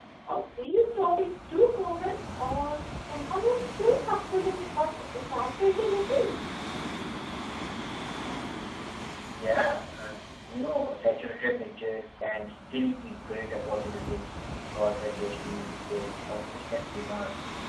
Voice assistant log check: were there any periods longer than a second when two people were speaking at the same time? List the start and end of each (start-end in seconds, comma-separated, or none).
none